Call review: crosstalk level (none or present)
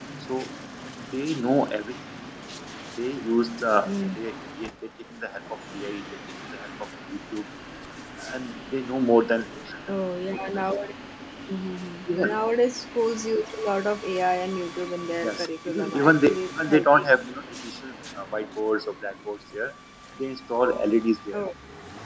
present